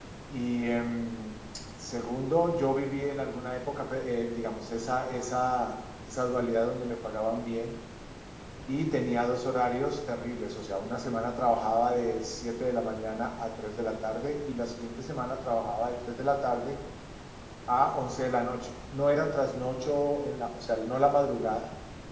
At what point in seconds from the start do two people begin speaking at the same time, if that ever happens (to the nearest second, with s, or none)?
none